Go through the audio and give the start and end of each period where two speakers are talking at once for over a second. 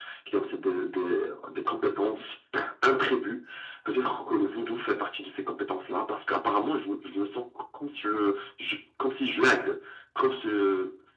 none

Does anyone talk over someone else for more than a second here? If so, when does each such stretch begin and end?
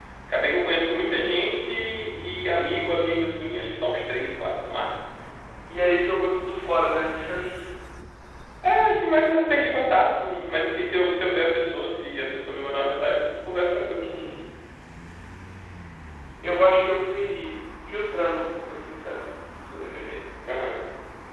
none

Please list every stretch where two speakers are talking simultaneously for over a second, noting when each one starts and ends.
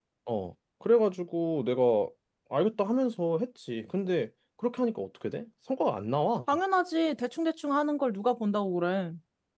none

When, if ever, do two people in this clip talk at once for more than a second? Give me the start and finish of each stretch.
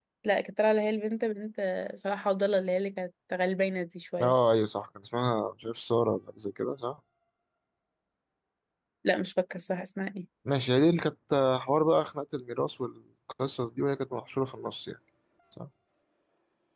none

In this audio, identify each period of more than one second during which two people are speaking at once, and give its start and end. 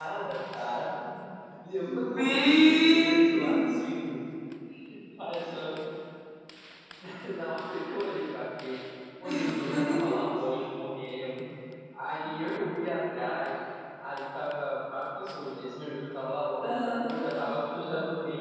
1.9-3.5

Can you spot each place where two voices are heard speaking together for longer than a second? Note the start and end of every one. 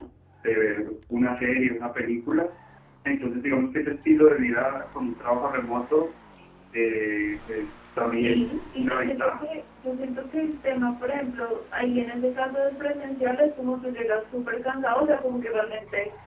8.1-9.4

